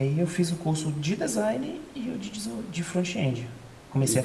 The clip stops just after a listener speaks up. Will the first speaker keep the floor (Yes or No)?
No